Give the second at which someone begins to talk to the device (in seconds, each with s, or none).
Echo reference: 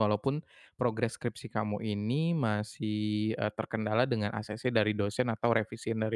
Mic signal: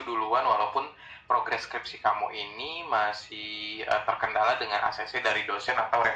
none